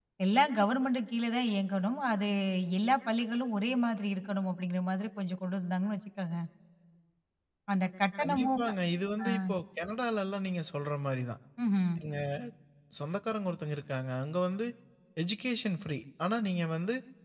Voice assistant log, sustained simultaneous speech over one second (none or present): none